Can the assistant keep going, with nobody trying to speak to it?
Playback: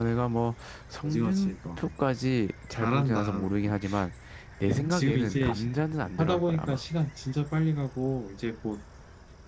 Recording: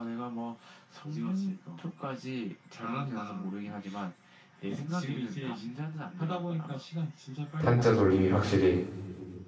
No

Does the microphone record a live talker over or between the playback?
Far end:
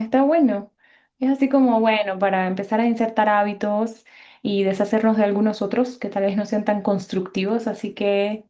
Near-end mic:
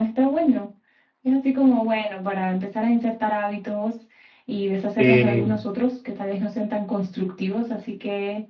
Yes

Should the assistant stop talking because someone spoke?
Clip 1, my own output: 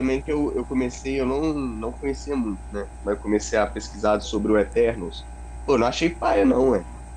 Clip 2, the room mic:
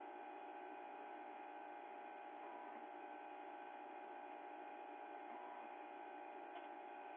No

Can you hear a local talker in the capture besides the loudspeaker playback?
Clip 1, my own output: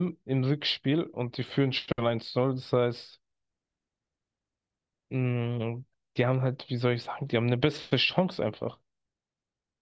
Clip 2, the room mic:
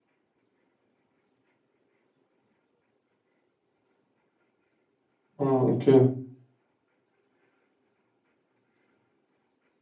Yes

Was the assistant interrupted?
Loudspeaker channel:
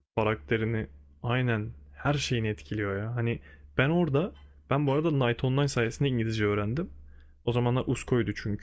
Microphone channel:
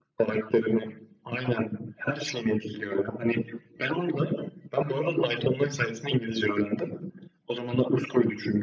No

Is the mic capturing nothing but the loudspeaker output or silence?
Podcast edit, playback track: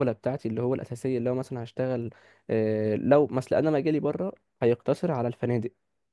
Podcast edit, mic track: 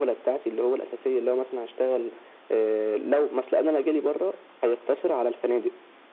Yes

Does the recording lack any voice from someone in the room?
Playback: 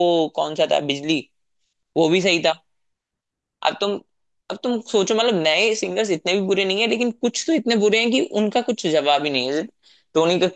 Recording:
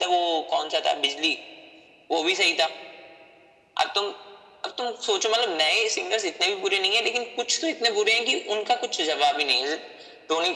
Yes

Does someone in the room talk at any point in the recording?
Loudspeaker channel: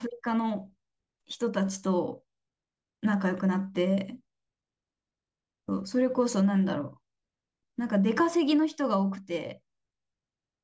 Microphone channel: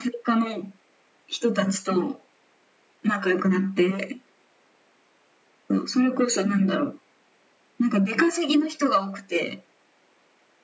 No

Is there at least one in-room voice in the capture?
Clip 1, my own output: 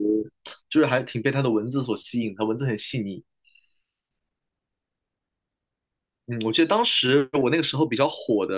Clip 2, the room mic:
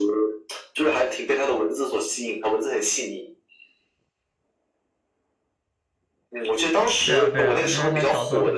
Yes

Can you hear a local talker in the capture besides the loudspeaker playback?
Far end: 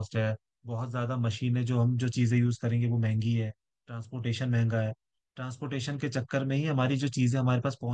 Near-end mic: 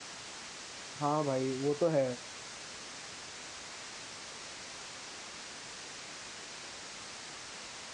Yes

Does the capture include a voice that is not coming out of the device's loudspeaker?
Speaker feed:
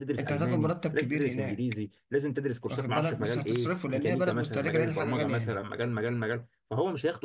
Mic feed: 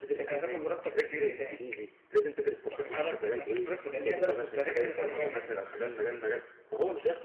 No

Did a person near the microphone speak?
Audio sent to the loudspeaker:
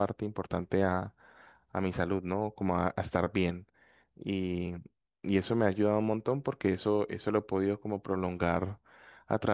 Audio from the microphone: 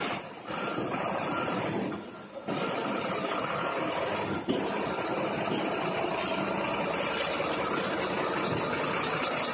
No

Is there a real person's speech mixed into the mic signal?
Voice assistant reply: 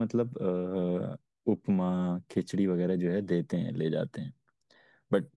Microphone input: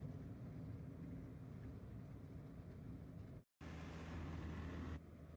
No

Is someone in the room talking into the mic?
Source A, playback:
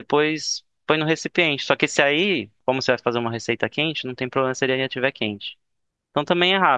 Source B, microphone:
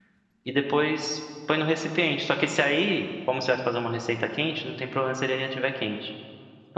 No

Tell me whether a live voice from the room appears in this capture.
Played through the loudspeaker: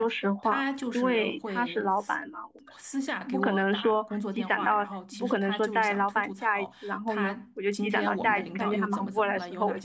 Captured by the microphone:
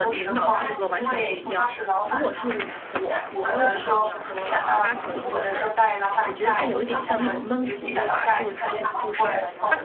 Yes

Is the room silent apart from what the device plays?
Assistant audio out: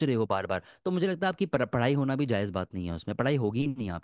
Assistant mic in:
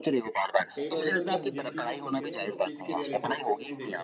No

